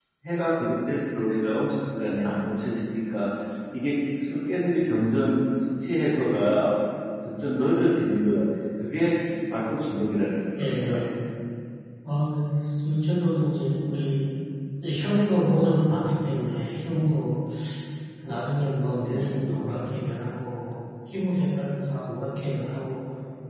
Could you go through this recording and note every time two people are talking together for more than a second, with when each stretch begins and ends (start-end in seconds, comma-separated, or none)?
none